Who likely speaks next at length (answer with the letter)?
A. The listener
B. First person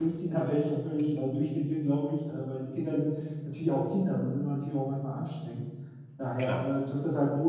B